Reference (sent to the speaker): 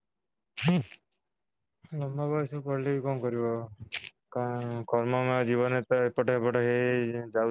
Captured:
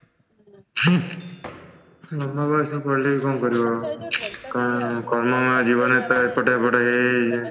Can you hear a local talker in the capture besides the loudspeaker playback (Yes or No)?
Yes